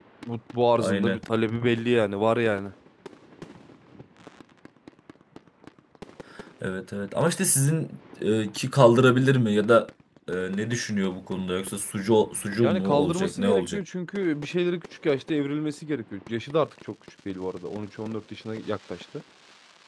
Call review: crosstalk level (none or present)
present